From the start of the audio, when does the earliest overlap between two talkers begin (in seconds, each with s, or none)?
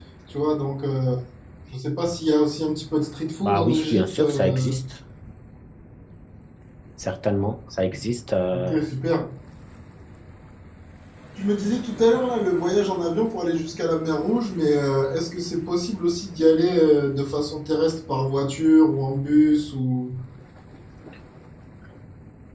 3.4 s